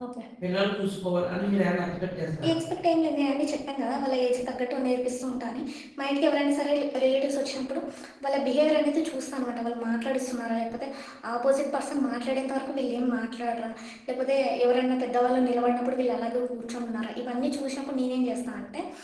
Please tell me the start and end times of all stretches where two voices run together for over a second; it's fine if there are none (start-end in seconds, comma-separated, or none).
none